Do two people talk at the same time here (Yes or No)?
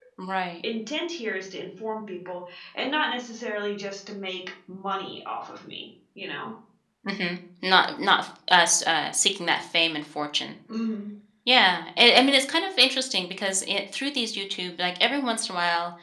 No